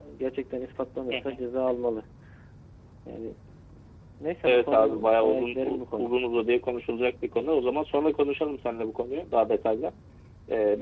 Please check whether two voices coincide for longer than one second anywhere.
Yes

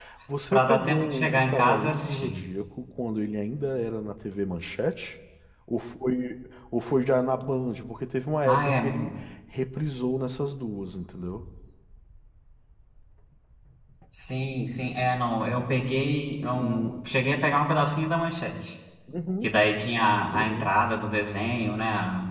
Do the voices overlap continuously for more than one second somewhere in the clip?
Yes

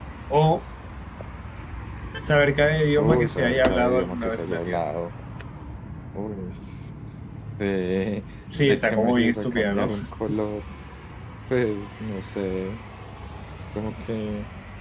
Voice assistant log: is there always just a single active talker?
No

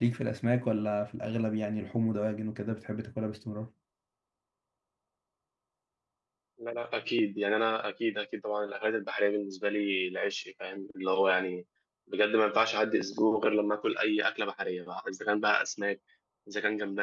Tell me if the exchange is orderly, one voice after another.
Yes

